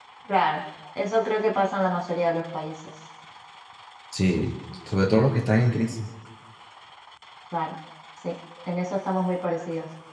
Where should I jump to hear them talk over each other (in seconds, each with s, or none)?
none